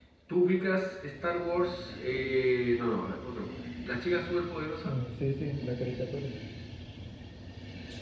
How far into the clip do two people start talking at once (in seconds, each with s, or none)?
none